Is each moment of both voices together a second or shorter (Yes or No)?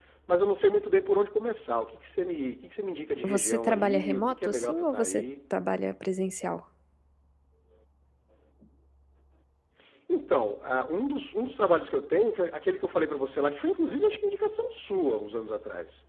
No